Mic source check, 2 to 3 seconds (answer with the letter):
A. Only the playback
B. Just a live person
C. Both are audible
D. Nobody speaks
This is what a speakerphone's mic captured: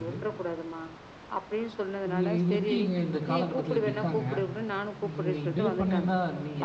C